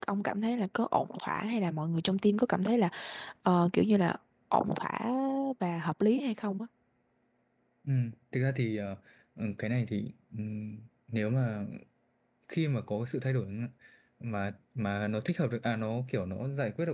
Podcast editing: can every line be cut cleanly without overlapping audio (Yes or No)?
Yes